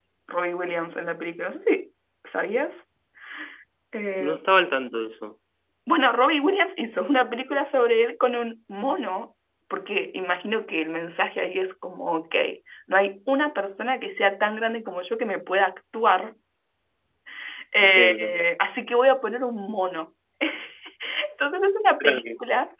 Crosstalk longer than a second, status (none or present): none